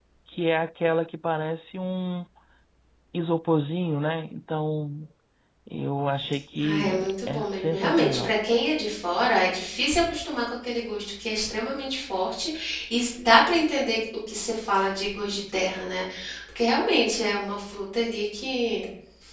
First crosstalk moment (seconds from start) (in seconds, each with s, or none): 6.6 s